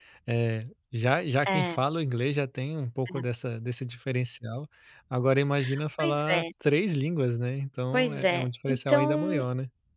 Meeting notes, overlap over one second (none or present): present